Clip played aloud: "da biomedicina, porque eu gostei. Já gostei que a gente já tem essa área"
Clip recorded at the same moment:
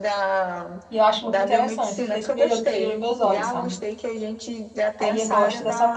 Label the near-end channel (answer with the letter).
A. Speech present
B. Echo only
A